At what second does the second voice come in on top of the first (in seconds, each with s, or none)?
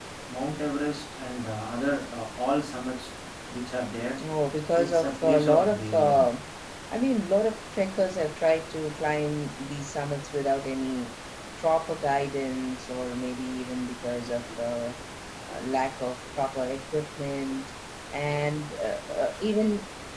4.8 s